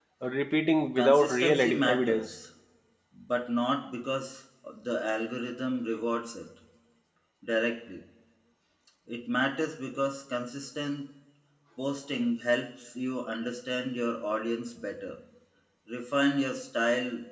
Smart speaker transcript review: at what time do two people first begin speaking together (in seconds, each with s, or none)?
1.0 s